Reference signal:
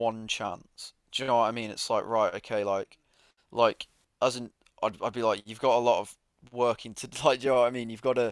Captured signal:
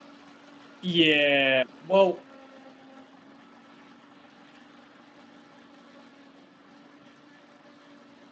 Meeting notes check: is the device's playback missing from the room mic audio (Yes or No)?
Yes